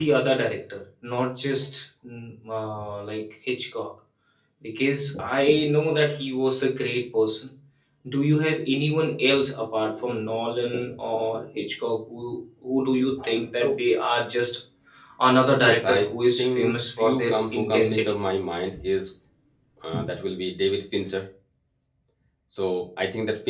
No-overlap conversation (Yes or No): No